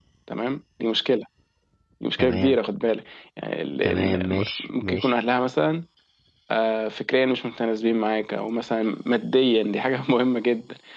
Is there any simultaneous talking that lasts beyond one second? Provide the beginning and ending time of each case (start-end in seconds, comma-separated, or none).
3.8-5.2